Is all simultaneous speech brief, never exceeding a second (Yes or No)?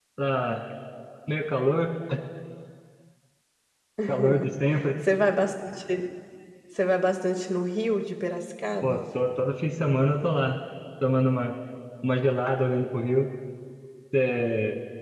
Yes